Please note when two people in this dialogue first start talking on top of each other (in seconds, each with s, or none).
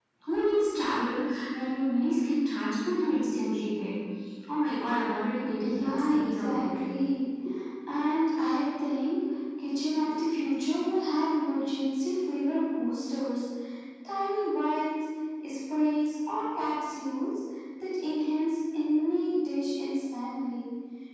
5.5 s